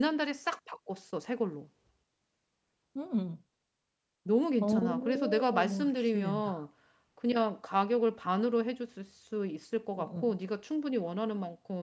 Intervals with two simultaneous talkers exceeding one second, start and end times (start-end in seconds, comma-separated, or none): 4.6-6.5